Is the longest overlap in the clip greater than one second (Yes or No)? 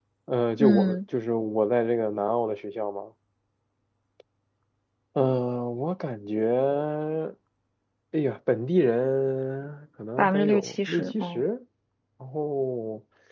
Yes